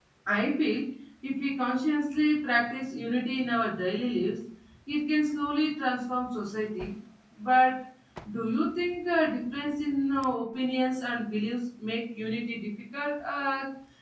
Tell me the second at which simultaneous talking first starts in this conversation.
none

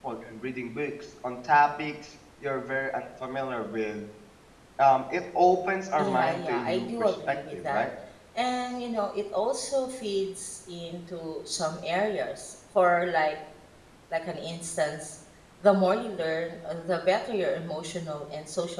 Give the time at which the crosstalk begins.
6.0 s

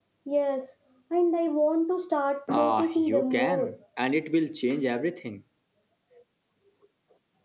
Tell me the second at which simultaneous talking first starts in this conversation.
2.5 s

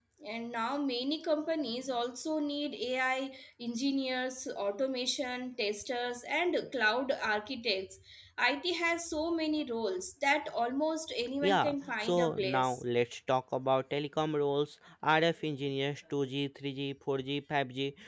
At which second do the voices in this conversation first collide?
11.4 s

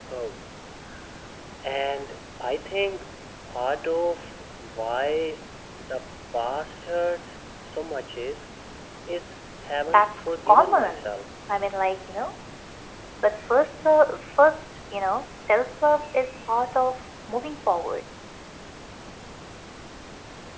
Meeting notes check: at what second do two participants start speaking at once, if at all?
9.9 s

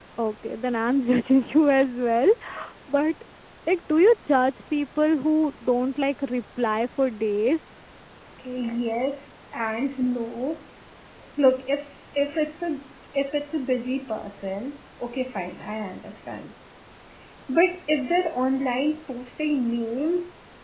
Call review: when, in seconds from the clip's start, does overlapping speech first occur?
none

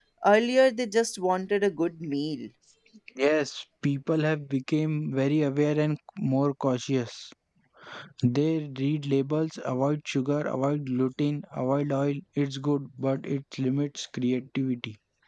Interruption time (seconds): none

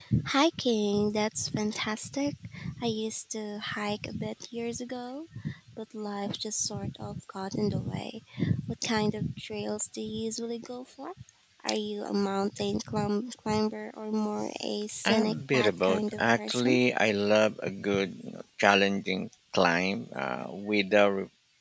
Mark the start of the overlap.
15.1 s

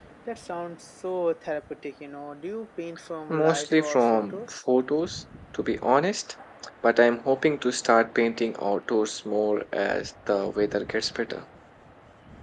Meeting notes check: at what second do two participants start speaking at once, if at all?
3.3 s

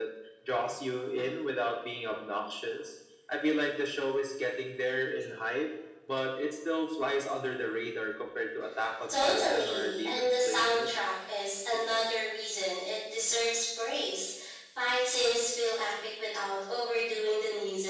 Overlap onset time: 9.1 s

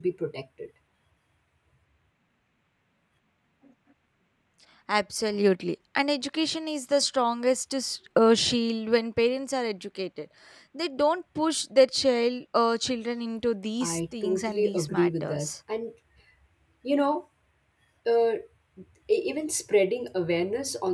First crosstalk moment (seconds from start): 13.8 s

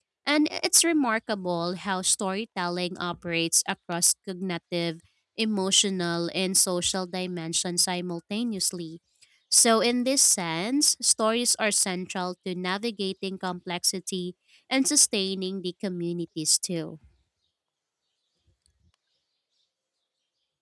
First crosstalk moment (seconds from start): none

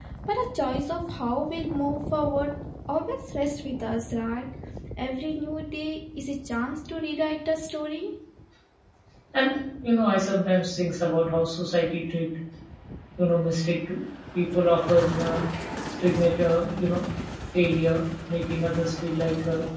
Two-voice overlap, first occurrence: none

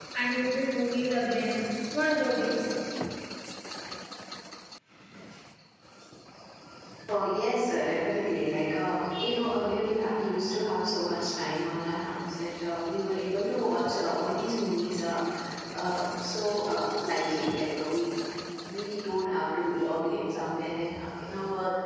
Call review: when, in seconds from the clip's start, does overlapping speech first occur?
none

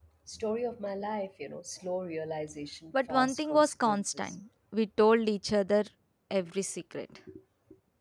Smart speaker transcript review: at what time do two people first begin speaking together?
2.9 s

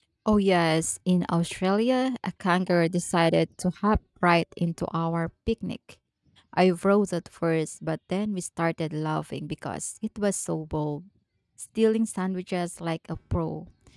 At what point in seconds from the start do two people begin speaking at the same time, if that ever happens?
none

